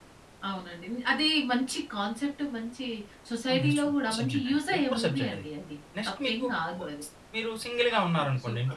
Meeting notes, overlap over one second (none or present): present